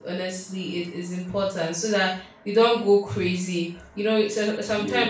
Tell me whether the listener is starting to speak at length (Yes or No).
No